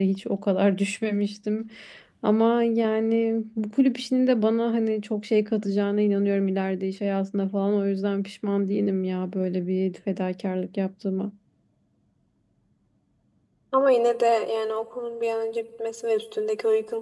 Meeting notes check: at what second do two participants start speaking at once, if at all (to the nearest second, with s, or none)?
none